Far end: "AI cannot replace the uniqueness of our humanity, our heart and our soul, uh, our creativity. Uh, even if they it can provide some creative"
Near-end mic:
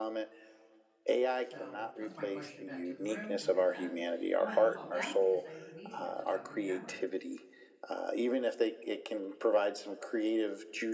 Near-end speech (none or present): present